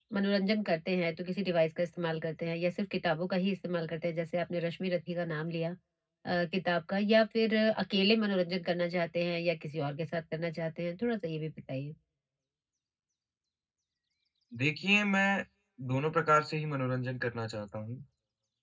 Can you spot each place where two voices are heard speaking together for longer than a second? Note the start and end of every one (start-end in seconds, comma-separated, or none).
none